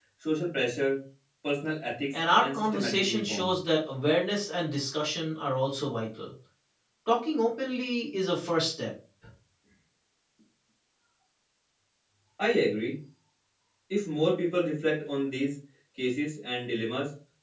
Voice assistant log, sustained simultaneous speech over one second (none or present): present